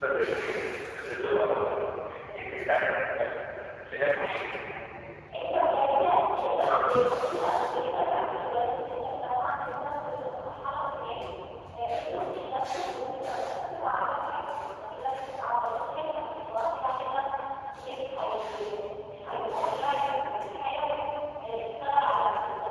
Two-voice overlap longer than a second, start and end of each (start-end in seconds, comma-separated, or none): none